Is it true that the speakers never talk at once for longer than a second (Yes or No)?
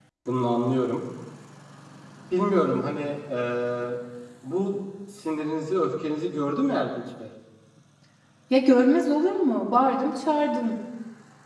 Yes